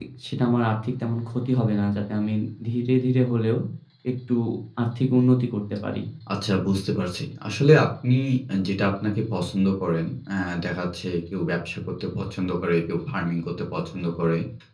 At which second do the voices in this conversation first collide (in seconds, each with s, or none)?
none